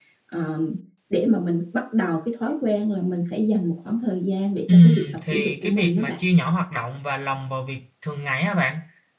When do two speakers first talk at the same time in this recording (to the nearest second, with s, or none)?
5 s